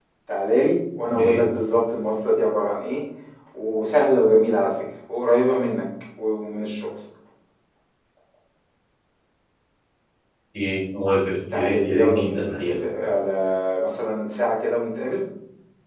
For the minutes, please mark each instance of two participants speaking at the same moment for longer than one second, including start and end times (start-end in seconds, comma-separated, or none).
11.5-12.8